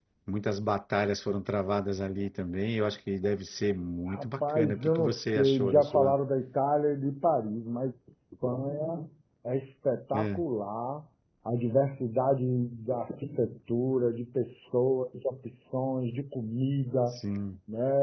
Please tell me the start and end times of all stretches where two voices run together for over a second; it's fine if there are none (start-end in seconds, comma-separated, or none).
4.1-6.1